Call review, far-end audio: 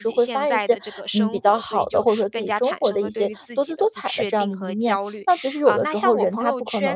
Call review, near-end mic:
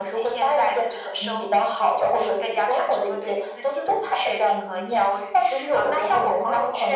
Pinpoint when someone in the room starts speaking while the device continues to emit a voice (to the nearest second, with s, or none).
none